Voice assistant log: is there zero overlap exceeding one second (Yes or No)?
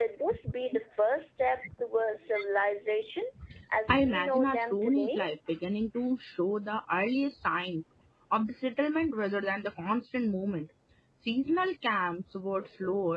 No